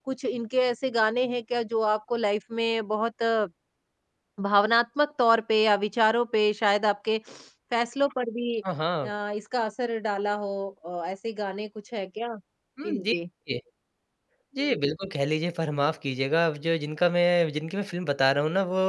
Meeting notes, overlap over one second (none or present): none